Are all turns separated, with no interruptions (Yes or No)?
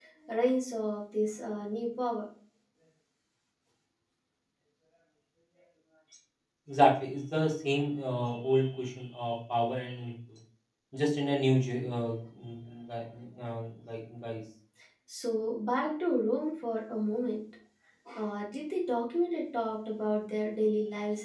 Yes